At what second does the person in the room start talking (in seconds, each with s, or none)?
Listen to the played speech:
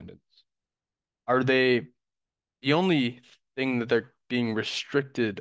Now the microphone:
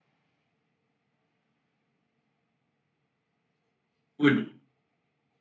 4.2 s